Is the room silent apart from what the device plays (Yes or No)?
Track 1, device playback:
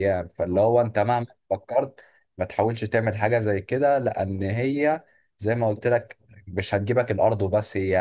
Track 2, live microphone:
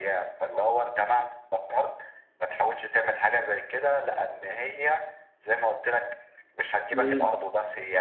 No